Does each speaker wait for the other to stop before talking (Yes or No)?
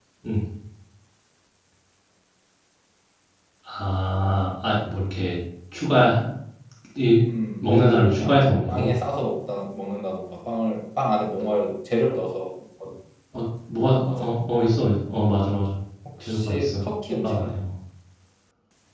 No